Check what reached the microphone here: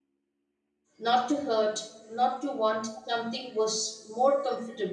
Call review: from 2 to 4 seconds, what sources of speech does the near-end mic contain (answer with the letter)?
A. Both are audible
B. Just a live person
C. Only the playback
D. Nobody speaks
B